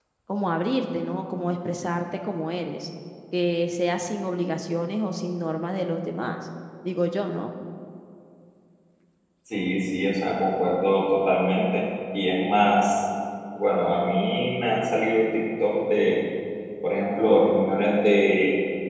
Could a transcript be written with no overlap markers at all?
Yes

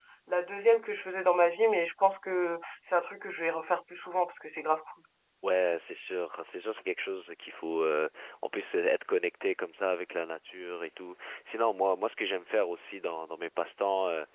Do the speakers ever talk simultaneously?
No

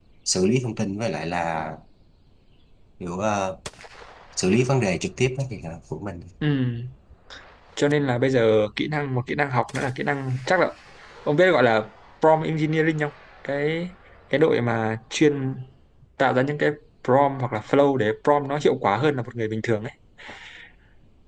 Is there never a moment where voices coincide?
Yes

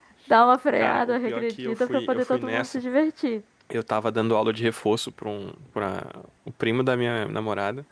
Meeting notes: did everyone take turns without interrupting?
No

